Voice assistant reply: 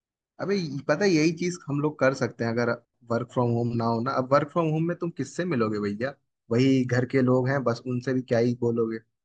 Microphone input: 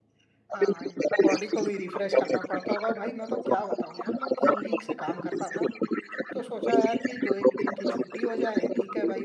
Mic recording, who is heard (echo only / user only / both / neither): both